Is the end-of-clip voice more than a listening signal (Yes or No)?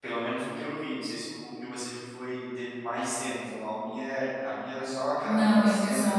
Yes